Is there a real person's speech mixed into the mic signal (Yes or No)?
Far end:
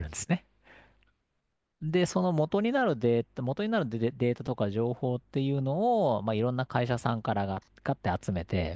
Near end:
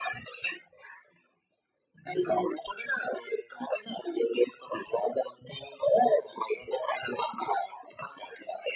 No